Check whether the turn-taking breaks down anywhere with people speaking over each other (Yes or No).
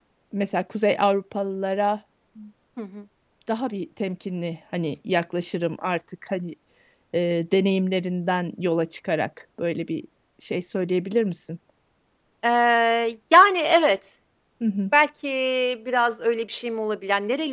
No